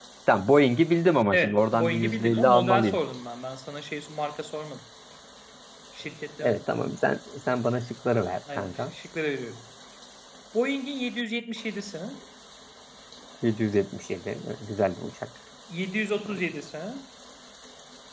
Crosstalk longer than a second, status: present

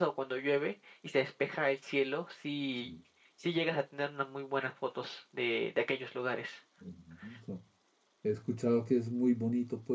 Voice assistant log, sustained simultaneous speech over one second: none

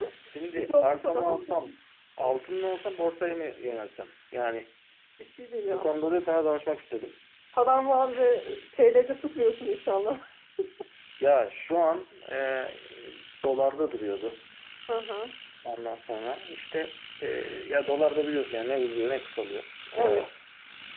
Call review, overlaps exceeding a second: present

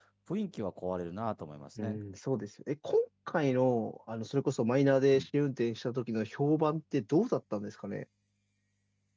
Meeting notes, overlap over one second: none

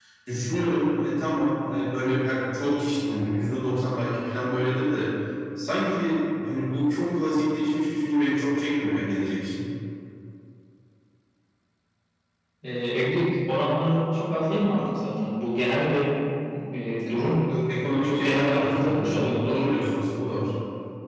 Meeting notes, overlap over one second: present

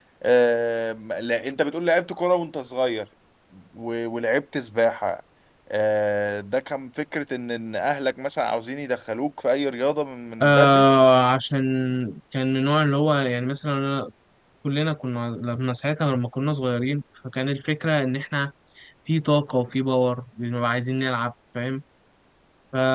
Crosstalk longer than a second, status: none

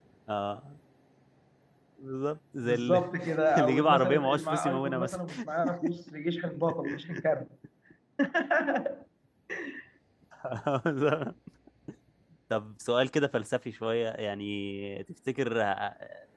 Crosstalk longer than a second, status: present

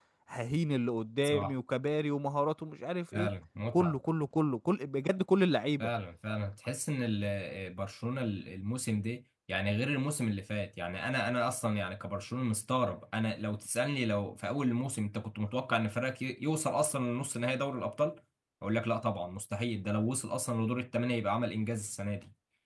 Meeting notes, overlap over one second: none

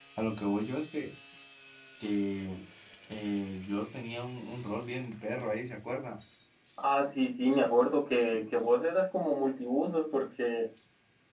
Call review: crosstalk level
none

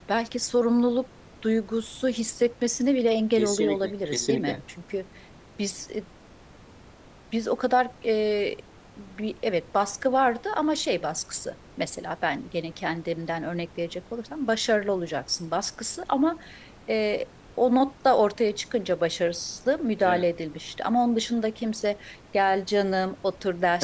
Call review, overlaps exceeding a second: present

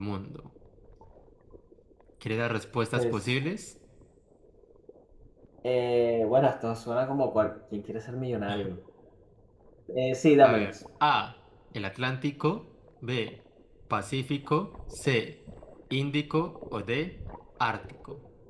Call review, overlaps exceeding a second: none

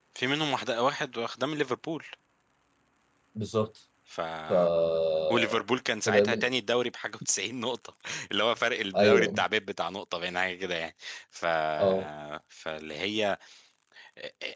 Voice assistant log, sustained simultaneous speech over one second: none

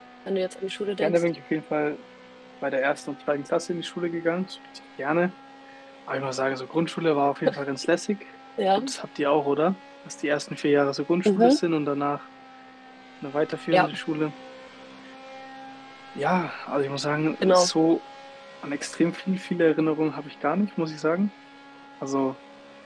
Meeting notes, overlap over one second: none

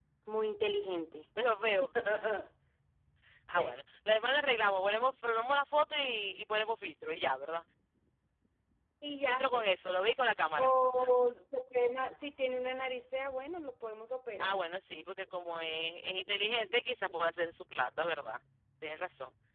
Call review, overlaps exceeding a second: none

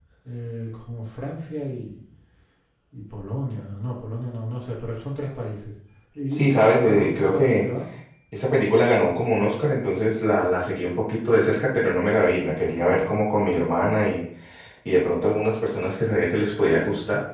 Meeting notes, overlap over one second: present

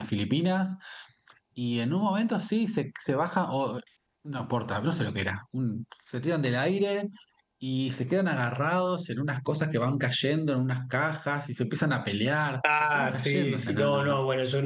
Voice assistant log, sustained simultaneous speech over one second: present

